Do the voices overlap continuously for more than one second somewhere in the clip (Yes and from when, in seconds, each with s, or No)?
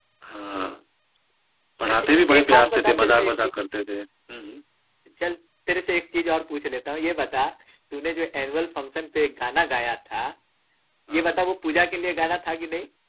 Yes, from 1.9 s